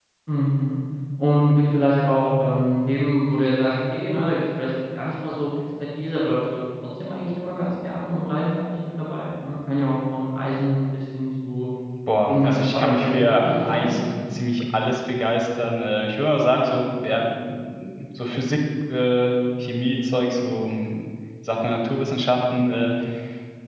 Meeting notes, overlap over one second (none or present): present